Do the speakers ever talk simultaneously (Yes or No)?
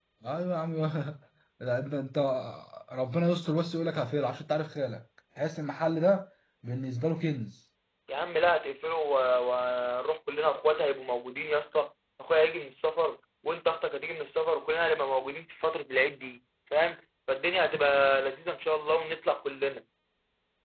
No